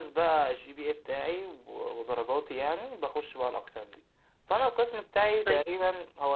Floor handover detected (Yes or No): No